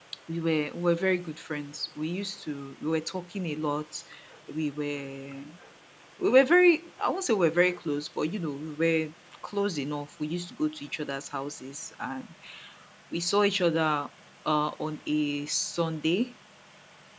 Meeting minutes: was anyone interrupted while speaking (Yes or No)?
No